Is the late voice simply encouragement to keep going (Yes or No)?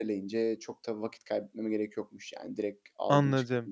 No